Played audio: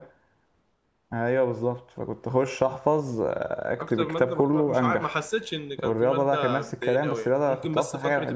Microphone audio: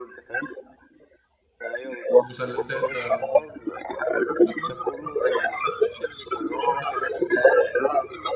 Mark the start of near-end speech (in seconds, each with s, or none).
2.2 s